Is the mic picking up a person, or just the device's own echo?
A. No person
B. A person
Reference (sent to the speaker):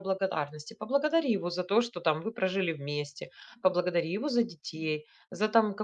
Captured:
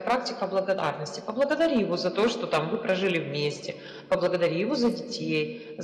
A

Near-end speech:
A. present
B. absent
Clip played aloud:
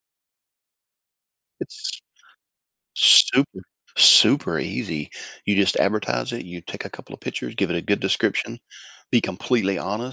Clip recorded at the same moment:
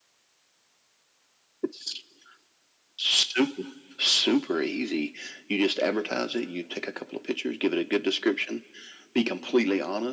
B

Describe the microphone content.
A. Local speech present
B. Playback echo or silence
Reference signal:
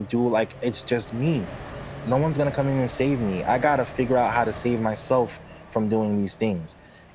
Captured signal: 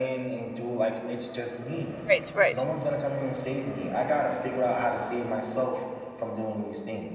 A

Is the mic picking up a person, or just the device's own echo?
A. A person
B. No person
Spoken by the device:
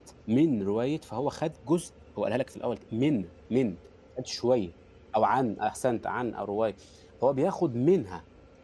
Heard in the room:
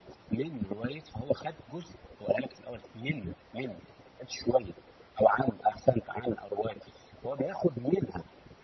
B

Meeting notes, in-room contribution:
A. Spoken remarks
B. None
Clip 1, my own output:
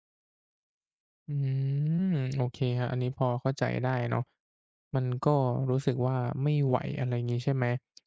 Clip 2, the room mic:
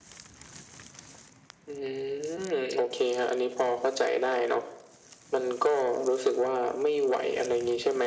B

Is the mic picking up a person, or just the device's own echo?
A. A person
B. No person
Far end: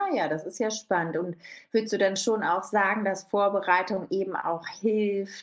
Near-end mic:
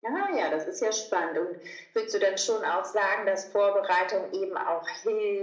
B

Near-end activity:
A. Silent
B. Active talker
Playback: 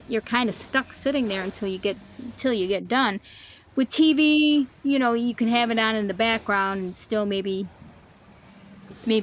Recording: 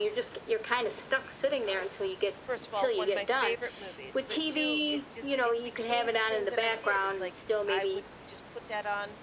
B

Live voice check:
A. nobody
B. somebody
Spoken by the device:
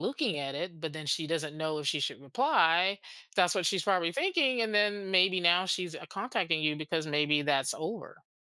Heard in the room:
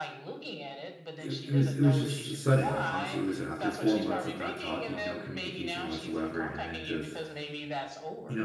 B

